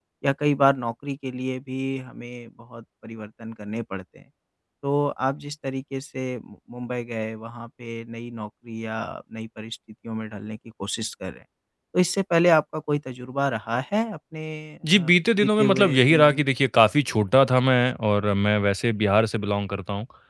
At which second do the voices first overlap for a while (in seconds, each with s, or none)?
14.8 s